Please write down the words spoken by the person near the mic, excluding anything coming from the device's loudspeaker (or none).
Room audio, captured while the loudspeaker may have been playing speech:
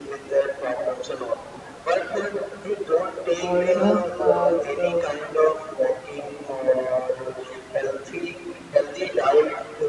or you know uh, uh,